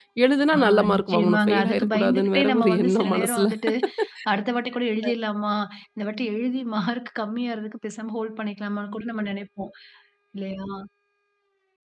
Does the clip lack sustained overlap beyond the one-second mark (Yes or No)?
No